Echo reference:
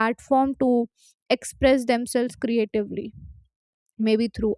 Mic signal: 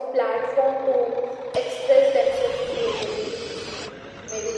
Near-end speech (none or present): none